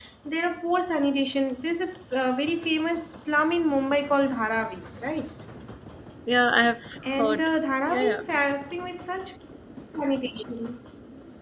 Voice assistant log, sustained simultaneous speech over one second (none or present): none